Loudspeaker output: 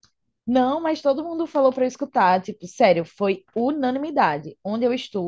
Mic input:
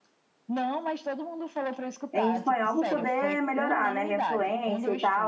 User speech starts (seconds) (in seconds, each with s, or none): 2.1 s